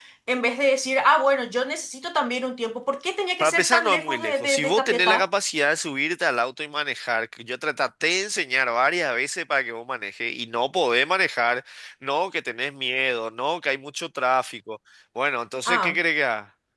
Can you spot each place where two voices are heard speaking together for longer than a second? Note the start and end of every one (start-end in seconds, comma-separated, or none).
3.4-5.3